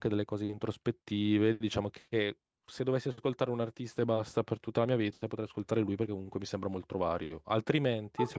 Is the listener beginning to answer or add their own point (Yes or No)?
Yes